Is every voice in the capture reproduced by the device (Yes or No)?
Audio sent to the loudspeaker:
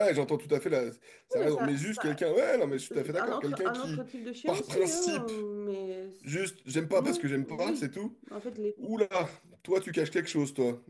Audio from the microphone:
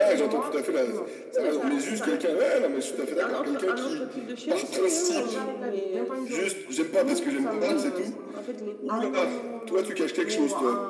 No